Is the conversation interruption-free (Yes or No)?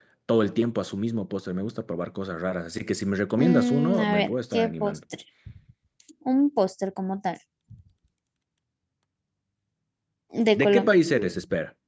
No